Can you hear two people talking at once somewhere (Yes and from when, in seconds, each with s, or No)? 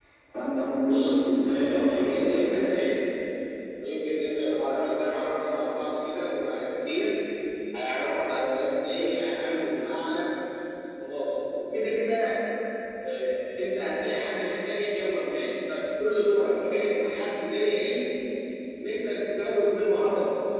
Yes, from 0.8 s